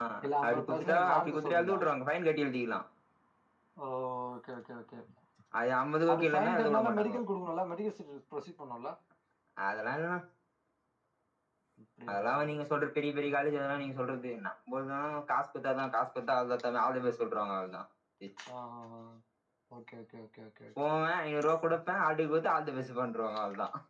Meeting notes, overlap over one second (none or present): present